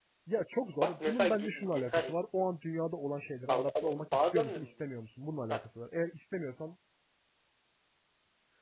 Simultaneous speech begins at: 1 s

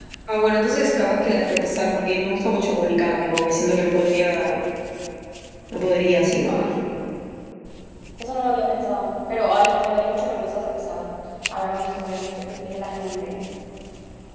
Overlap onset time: none

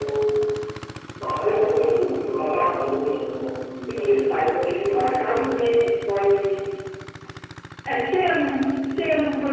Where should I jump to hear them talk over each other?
4 s

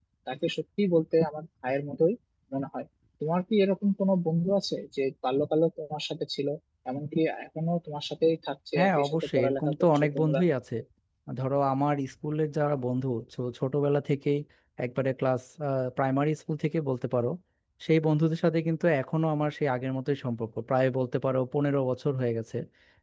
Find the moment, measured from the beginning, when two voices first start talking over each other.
9 s

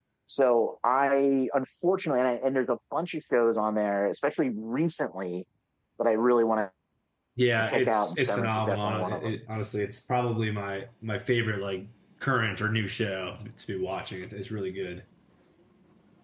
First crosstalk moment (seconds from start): 8 s

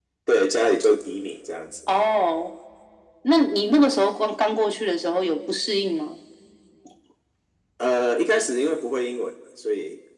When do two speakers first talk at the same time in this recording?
none

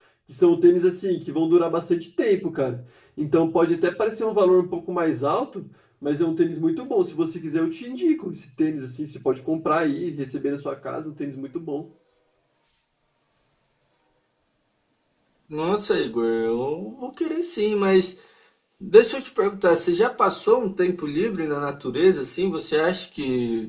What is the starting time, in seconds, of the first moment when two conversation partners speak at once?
none

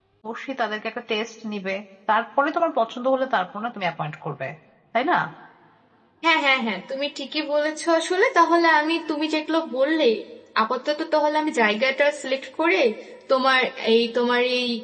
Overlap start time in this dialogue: none

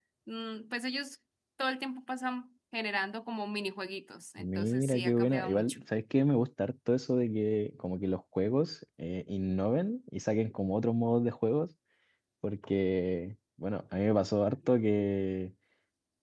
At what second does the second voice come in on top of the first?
4 s

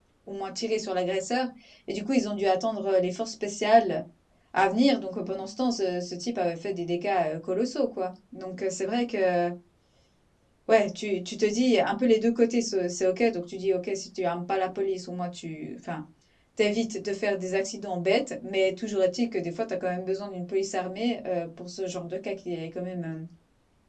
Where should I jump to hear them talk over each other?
none

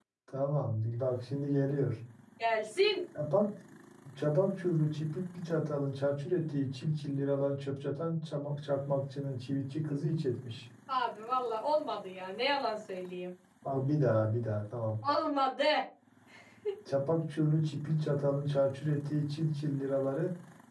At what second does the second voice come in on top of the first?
none

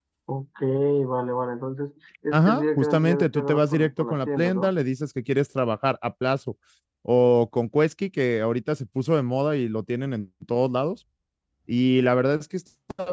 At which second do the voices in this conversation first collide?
2 s

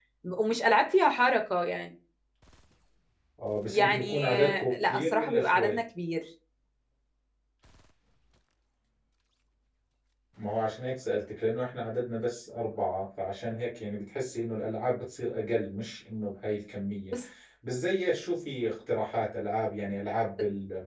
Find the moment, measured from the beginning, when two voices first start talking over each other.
4 s

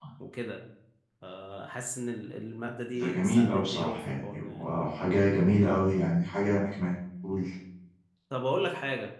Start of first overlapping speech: 3 s

